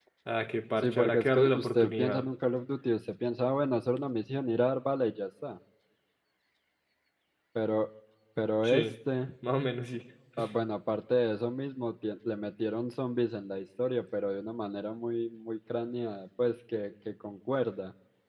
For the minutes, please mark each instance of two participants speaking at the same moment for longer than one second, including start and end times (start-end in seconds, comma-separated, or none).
0.8-2.2